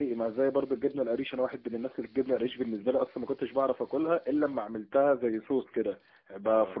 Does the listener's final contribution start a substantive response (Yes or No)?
No